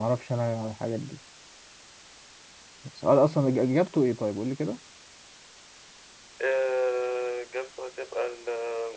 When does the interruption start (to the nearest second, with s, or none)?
none